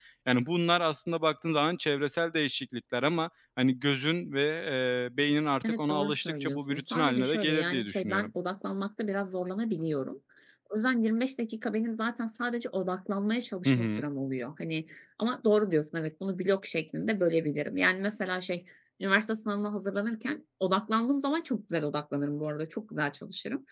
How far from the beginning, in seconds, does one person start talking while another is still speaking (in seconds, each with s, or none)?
5.6 s